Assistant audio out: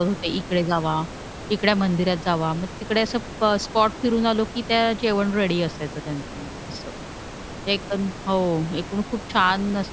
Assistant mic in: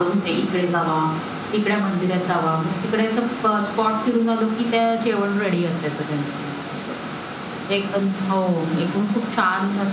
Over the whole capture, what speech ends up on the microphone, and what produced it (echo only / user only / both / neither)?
echo only